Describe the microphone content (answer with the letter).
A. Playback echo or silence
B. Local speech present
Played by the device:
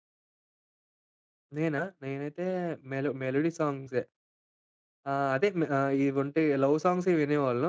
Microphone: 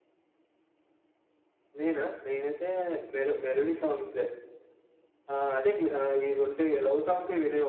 B